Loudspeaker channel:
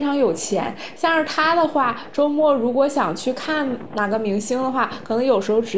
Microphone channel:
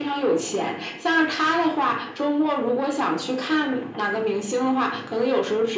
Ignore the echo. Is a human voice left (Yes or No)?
No